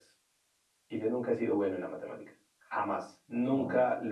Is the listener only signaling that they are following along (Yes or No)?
Yes